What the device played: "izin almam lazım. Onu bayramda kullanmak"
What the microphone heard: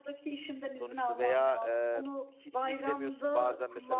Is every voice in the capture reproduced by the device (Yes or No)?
No